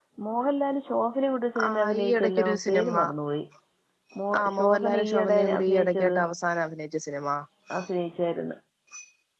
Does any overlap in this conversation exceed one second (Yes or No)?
Yes